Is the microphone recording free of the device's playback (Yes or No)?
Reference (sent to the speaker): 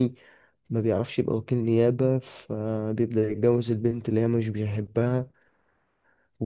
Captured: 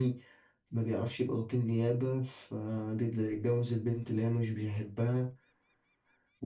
No